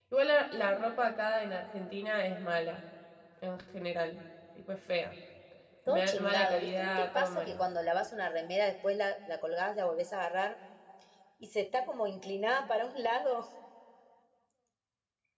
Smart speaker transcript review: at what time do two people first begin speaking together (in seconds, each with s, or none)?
5.9 s